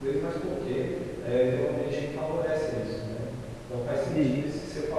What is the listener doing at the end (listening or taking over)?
listening